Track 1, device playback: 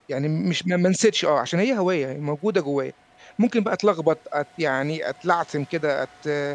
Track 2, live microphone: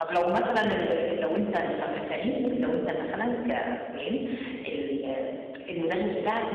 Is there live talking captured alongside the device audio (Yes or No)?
Yes